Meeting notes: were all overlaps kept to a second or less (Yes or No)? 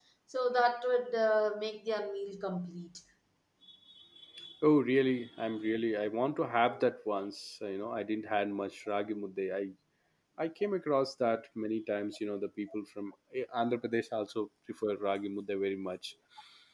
Yes